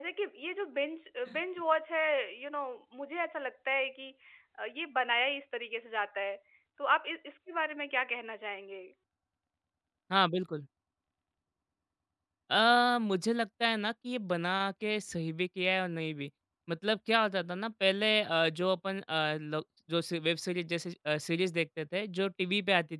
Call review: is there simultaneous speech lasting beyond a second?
No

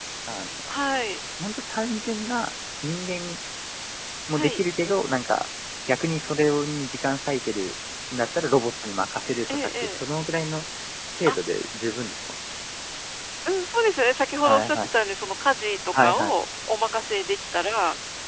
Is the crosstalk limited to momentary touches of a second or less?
Yes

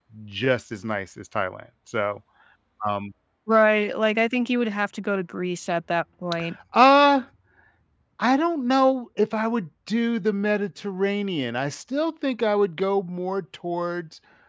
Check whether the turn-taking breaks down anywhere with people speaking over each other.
No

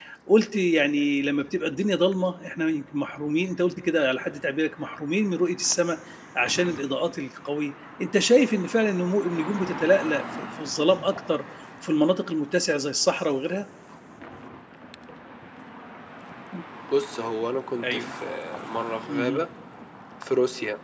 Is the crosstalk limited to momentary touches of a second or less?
Yes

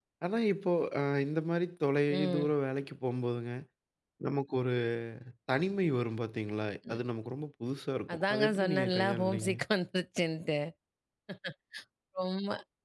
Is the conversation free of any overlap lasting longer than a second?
No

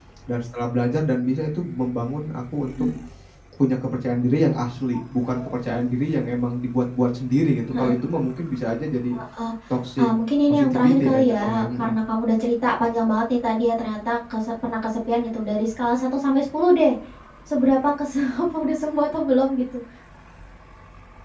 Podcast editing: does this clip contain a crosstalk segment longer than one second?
Yes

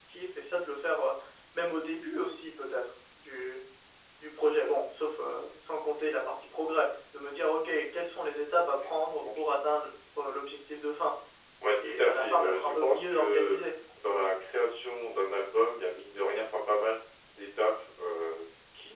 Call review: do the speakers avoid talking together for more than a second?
No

